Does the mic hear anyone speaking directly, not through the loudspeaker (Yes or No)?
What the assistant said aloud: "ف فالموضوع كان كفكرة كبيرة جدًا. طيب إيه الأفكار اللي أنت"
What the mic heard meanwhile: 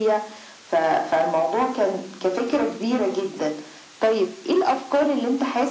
No